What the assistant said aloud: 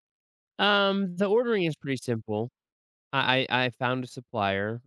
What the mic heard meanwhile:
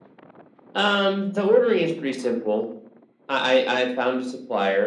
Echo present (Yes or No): Yes